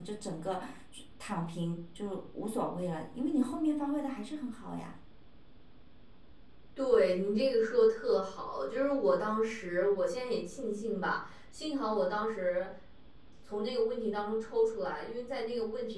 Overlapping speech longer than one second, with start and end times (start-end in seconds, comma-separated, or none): none